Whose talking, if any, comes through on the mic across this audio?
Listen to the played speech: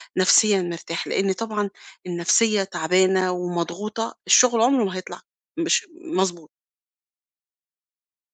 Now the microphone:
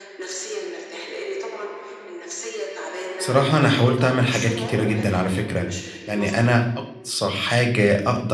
both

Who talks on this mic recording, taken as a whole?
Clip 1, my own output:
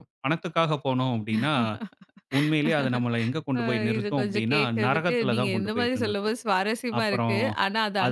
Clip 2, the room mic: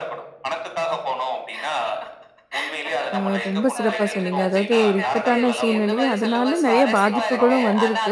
both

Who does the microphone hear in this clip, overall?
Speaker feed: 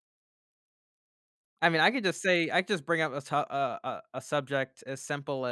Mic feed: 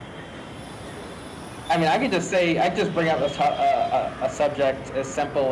echo only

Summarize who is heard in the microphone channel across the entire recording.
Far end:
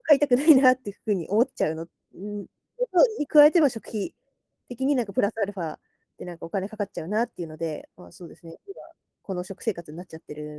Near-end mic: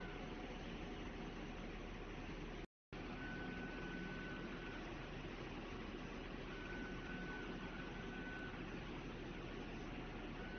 neither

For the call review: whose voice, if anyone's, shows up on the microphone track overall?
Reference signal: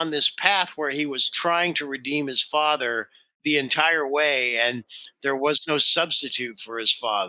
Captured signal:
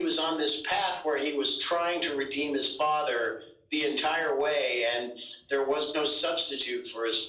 echo only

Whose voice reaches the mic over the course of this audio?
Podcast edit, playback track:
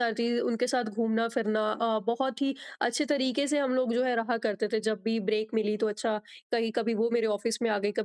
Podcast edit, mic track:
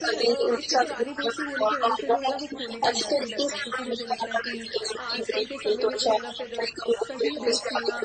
both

